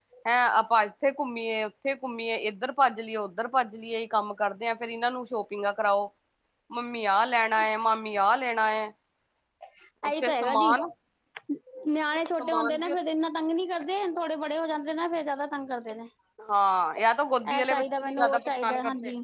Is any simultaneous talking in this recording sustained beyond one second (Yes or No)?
Yes